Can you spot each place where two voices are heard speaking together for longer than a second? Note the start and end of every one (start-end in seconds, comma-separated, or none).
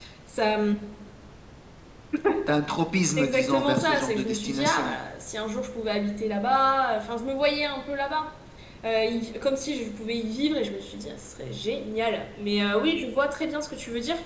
3.2-4.9